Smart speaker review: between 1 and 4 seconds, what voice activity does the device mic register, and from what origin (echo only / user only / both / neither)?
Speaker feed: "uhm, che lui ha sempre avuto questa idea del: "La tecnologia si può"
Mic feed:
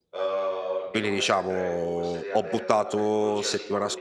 both